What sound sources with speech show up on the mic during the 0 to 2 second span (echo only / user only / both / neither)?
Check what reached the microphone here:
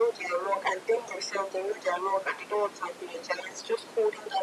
echo only